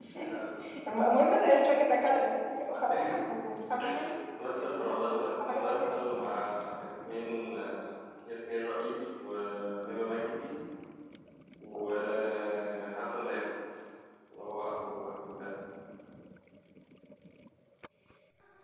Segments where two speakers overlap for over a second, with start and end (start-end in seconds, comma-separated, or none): 4.5-6.2